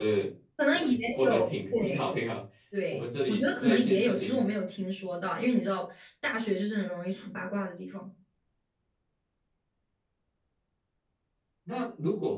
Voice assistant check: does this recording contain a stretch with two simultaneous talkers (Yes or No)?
Yes